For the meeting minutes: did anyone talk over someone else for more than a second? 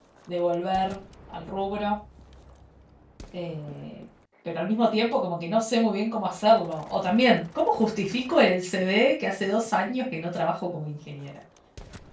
No

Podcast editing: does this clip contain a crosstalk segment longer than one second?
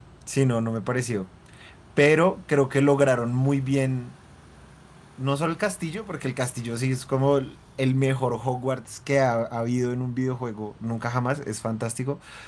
No

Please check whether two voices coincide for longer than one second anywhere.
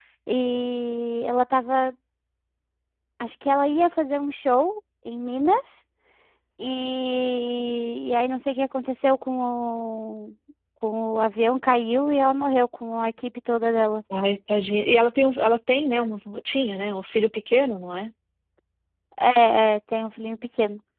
No

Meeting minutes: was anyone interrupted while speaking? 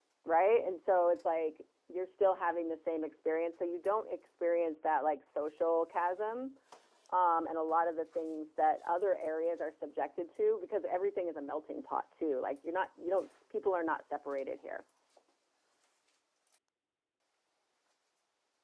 No

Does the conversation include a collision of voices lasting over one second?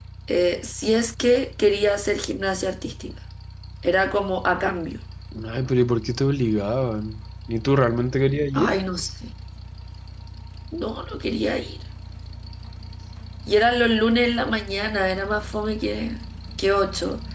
No

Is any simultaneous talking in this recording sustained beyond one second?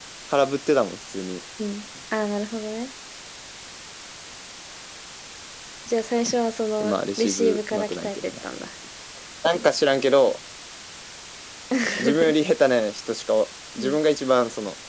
Yes, from 6.8 s

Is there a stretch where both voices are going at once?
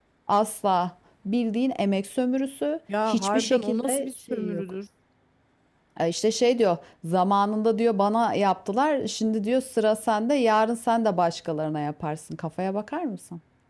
Yes, from 2.9 s

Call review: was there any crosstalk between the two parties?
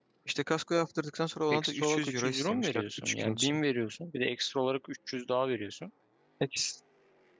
Yes, from 1.5 s

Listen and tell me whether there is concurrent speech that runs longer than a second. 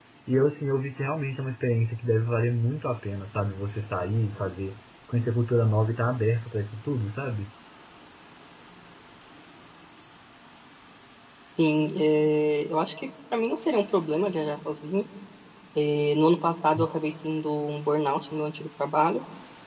No

